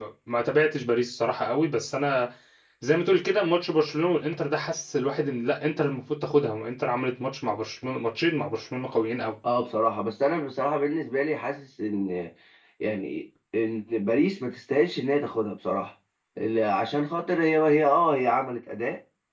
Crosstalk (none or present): none